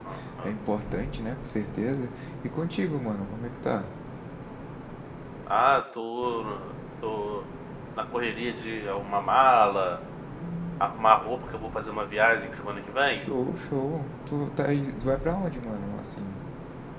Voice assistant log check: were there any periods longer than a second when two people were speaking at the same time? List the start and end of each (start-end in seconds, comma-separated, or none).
none